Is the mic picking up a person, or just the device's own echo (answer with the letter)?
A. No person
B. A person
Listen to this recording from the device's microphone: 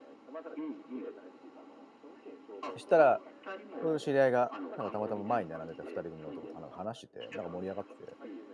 B